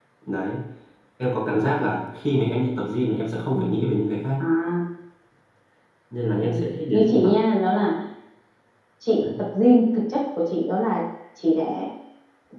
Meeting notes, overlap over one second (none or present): none